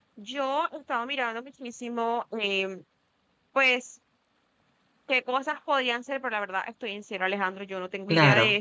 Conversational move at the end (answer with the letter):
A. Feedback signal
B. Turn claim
A